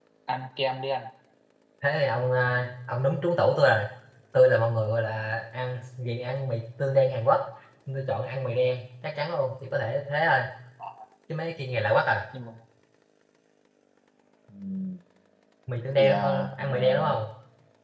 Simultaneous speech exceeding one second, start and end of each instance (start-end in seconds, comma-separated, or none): 15.9-17.1